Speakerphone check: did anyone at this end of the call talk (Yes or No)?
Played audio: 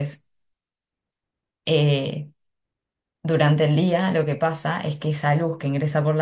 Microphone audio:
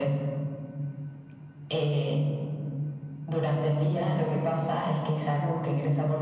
No